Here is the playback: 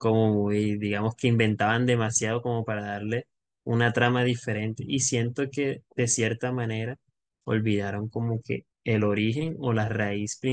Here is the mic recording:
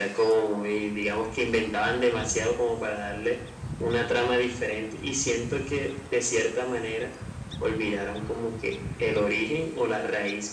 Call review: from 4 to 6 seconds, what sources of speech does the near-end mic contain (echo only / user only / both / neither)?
echo only